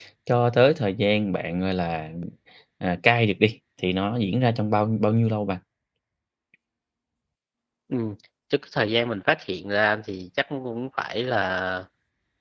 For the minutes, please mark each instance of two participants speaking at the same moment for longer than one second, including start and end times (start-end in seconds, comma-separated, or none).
none